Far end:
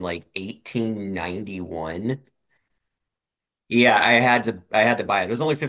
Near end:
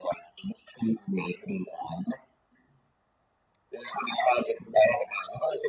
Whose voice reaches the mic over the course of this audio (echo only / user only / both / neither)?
echo only